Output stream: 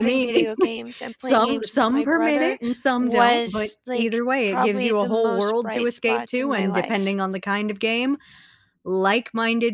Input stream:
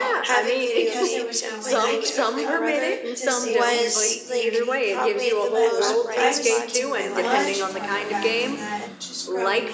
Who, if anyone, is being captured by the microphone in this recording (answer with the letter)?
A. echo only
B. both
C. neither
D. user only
B